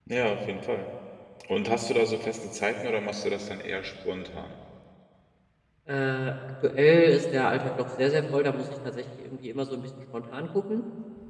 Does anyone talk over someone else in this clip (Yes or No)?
No